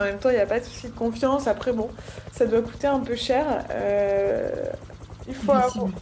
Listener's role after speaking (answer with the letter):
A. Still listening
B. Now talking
A